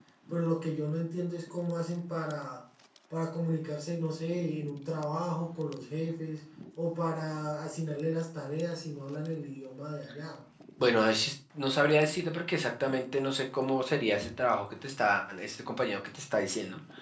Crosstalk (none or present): none